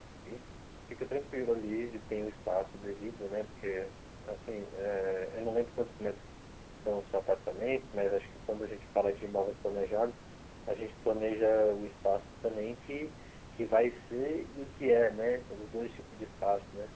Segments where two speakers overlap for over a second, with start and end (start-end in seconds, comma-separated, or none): none